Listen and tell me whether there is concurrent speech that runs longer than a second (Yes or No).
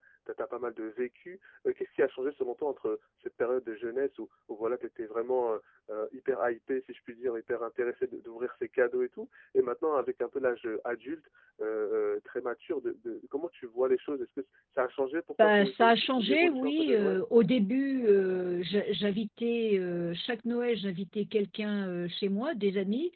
Yes